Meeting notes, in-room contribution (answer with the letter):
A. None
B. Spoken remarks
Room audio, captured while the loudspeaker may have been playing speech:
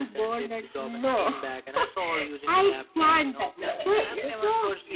B